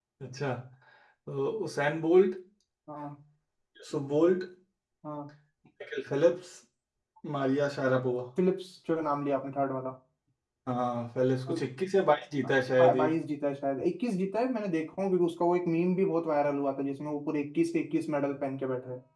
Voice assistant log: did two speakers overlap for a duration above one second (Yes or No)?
No